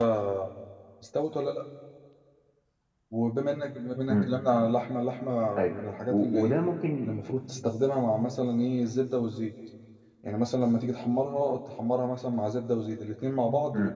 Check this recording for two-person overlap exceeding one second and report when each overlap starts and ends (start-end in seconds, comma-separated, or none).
none